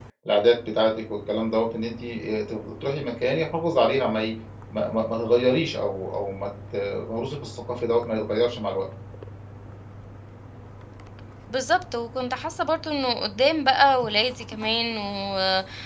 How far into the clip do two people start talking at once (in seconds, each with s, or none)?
none